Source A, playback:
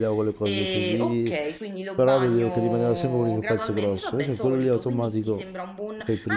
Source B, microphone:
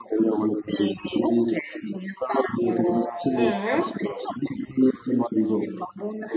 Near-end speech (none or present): present